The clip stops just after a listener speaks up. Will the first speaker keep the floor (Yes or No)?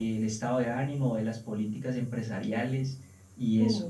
No